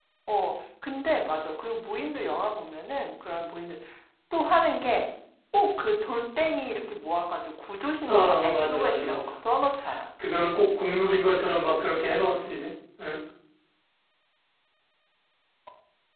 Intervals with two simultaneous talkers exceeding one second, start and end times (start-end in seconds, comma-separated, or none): 8.1-9.3